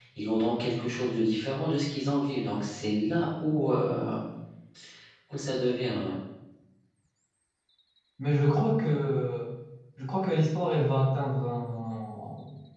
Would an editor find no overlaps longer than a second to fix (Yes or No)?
Yes